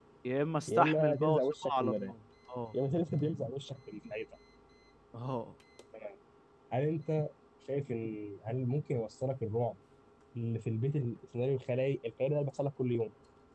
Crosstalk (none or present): present